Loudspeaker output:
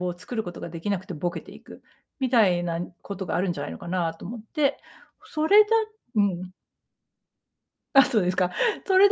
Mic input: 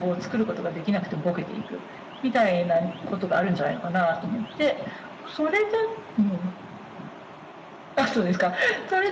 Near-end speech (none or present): none